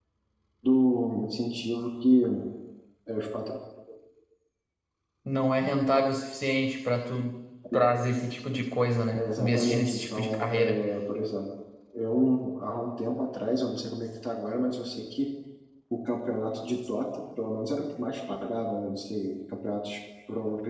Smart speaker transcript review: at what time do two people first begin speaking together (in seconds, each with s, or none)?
9.1 s